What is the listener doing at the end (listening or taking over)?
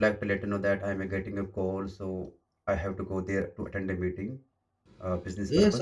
taking over